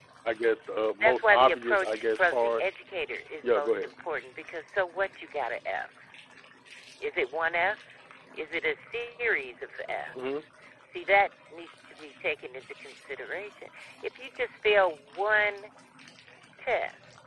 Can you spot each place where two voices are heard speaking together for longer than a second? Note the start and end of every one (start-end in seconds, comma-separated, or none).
0.8-2.6